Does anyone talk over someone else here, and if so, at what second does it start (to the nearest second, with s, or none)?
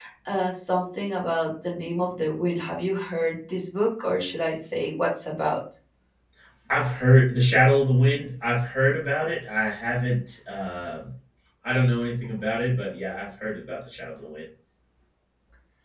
none